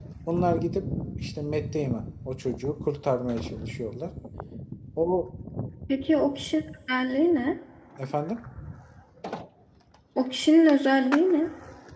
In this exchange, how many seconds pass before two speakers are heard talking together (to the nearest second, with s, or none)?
none